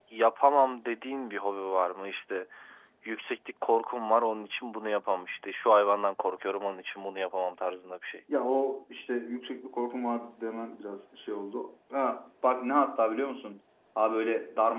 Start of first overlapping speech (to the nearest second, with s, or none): none